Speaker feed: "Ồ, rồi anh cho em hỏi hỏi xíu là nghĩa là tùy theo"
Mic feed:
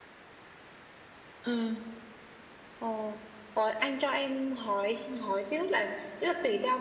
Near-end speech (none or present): none